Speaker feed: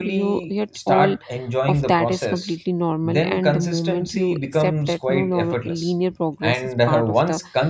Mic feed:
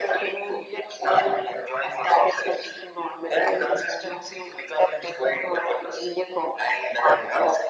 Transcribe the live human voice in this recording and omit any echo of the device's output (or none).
none